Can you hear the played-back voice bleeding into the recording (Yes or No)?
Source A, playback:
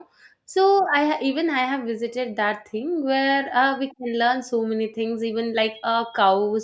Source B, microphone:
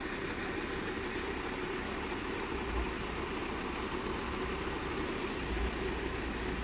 No